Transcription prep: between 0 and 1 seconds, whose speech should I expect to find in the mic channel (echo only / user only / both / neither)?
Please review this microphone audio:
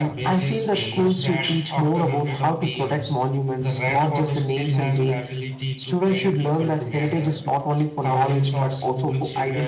echo only